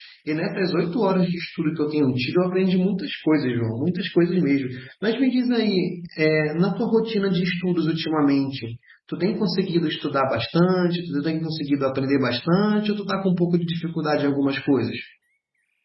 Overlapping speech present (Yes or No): No